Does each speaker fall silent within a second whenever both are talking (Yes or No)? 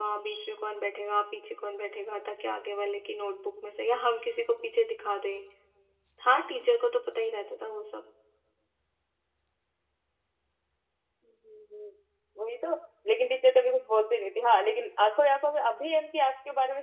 Yes